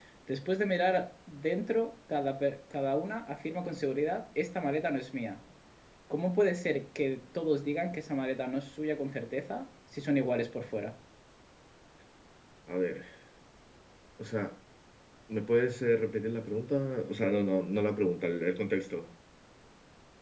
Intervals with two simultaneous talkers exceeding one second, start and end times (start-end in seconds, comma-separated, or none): none